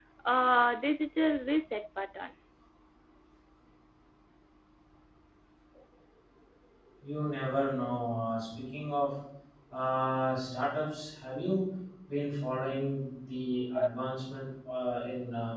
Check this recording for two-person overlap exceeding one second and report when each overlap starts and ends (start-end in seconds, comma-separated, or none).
none